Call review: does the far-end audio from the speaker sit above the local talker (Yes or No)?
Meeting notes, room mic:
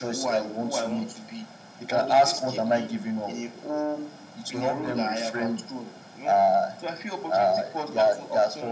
Yes